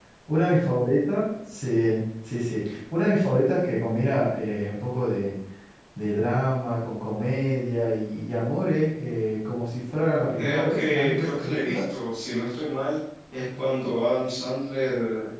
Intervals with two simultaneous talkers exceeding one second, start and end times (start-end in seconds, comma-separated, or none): 10.4-11.8